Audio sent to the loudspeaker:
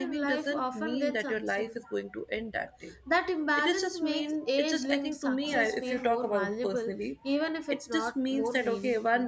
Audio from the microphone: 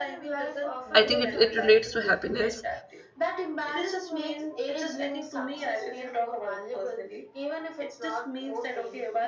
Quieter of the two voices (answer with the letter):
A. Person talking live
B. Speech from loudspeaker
B